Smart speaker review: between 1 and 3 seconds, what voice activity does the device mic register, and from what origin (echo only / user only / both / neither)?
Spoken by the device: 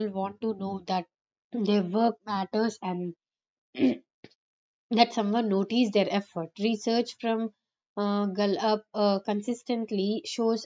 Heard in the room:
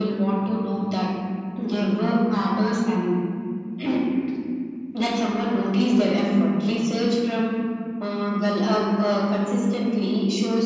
echo only